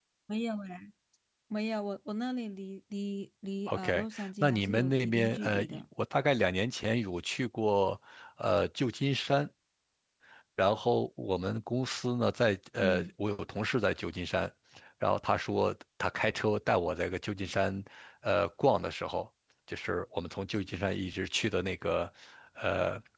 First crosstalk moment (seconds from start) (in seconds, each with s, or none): 3.7 s